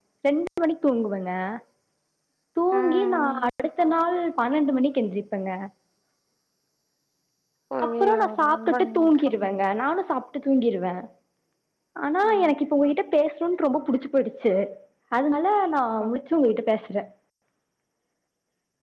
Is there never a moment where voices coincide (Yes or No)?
No